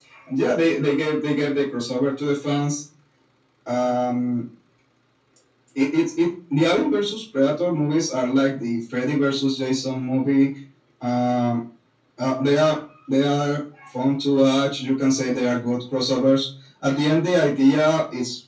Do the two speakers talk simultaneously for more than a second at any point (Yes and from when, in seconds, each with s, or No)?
No